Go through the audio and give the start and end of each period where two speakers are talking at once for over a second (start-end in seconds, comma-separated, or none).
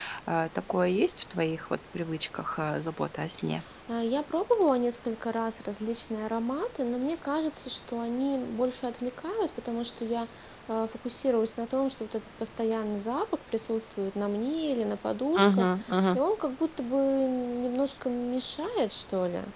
none